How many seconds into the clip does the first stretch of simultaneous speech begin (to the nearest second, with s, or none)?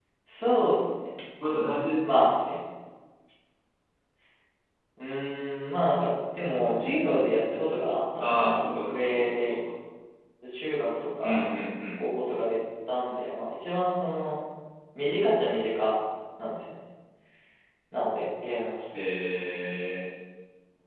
8 s